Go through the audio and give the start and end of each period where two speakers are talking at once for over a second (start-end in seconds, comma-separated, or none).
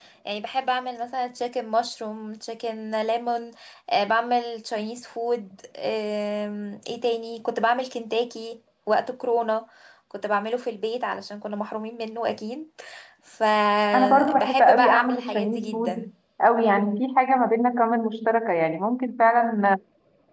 13.9-16.1